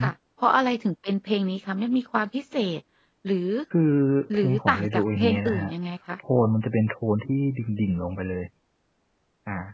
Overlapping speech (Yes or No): Yes